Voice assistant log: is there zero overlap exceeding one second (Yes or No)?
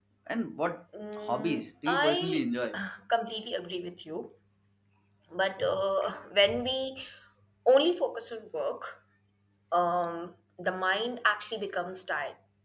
No